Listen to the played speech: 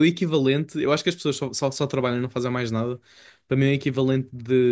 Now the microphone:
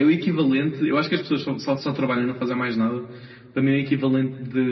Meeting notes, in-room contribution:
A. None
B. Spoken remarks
A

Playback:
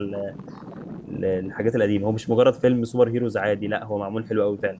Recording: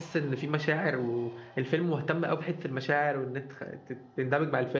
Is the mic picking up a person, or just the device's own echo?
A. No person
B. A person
B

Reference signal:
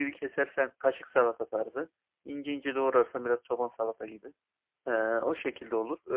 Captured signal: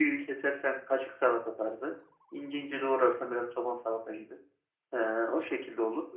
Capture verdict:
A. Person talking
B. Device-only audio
B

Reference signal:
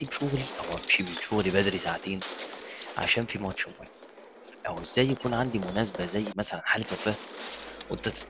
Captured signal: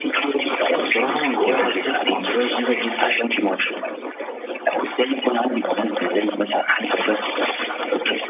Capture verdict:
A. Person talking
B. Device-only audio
A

